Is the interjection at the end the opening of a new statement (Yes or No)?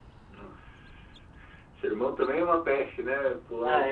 Yes